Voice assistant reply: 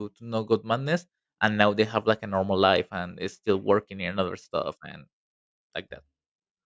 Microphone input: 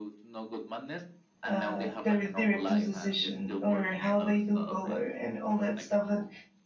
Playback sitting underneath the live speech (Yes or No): Yes